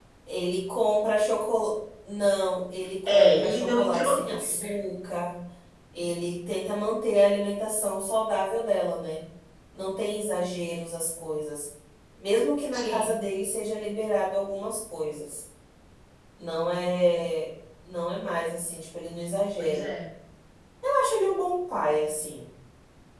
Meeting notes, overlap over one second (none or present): present